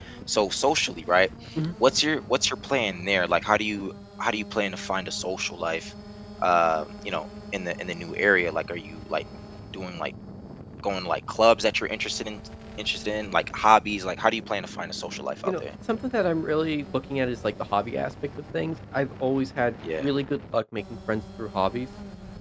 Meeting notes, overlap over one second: none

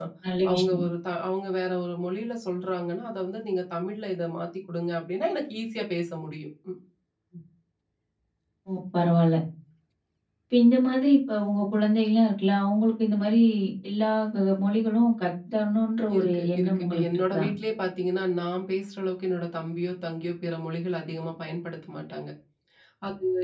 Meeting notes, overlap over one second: present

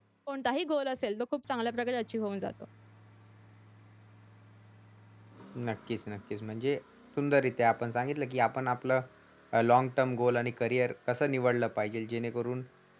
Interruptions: none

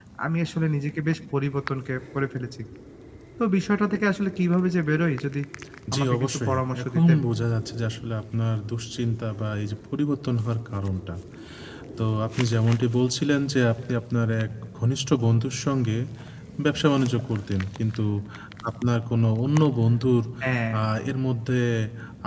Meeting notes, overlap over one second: present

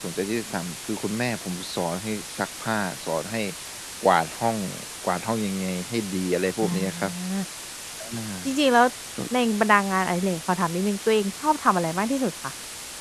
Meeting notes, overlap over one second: none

